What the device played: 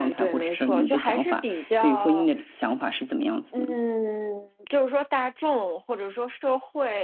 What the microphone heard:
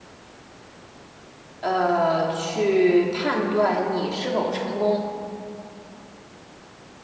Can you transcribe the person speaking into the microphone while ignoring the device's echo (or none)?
呃，去判断你是否成功。